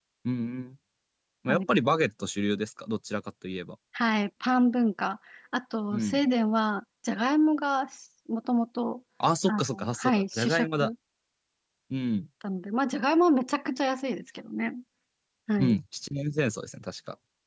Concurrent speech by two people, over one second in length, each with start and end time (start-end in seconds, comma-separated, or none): 9.5-10.9